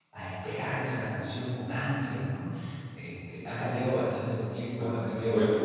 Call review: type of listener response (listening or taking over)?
taking over